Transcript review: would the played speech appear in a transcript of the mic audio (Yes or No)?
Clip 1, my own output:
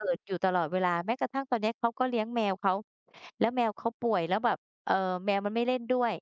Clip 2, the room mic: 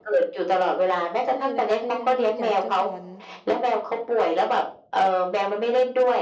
Yes